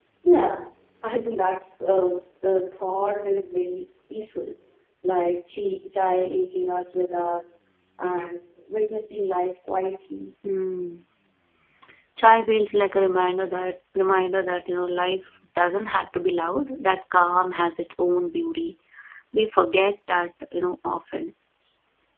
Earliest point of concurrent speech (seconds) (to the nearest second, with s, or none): none